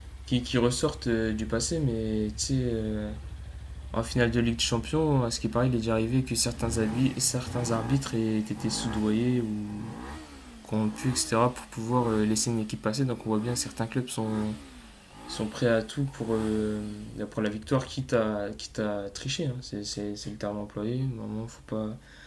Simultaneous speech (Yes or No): No